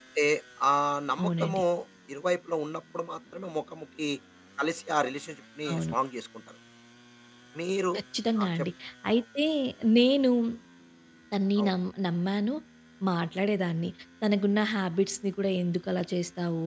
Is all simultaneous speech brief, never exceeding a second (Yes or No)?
Yes